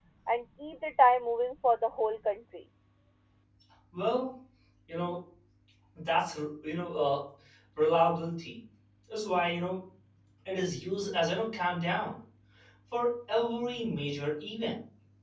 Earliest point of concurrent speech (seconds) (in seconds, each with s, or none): none